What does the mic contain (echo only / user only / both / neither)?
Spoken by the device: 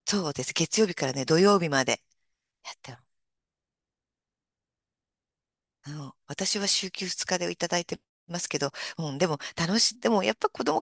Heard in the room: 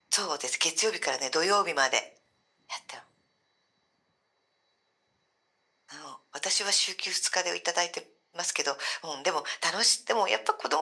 echo only